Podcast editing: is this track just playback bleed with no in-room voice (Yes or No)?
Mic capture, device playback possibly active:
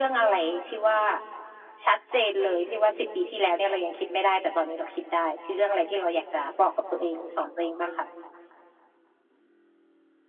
Yes